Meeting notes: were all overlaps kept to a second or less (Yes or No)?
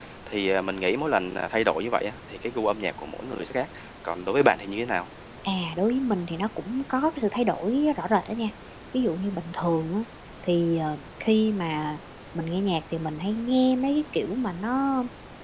Yes